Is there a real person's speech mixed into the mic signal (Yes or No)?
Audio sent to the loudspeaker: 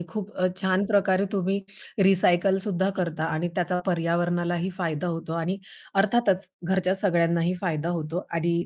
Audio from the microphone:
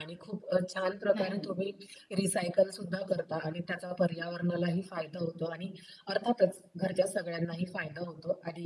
Yes